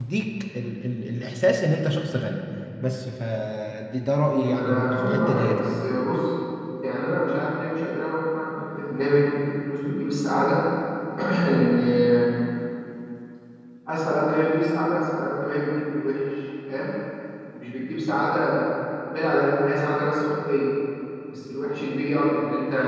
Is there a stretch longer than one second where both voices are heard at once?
Yes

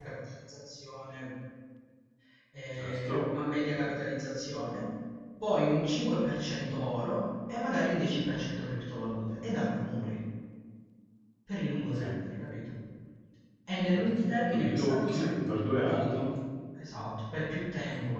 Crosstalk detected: Yes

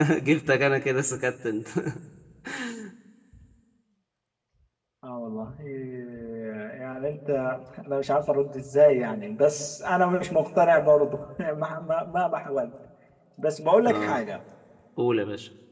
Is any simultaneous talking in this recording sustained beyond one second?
No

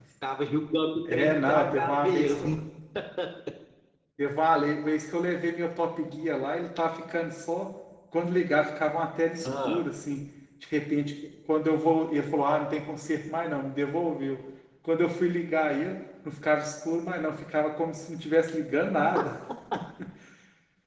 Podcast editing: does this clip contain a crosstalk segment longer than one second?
Yes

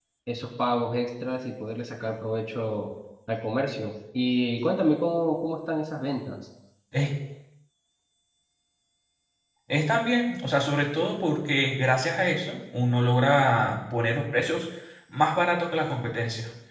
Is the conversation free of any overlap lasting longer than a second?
Yes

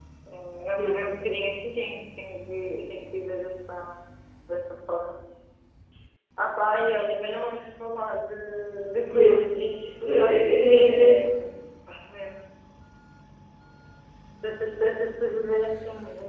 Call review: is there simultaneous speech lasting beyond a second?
Yes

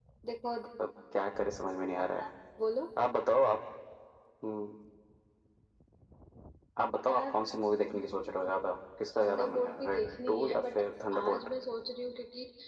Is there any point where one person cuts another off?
Yes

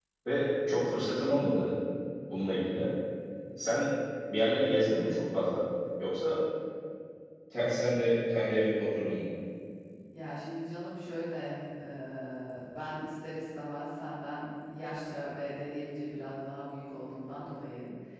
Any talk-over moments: No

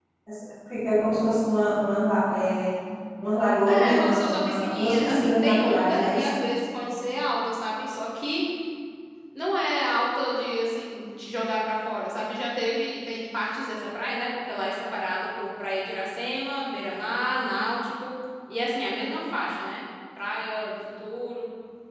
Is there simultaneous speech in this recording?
Yes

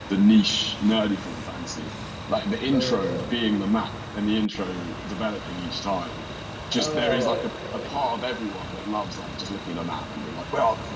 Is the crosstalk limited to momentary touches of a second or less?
No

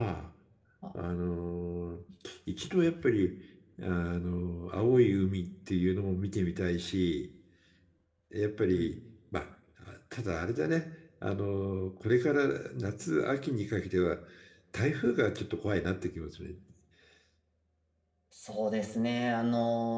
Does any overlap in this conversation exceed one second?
No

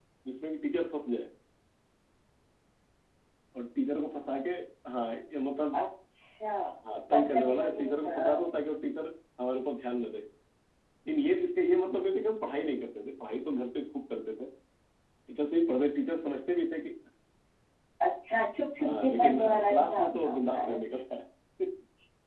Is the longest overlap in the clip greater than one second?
Yes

